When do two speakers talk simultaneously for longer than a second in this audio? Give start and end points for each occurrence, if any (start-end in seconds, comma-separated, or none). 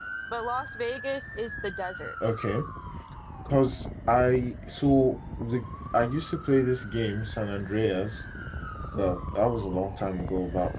none